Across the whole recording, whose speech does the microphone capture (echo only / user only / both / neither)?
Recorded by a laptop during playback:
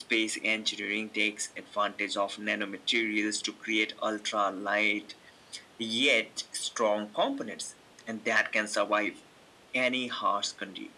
echo only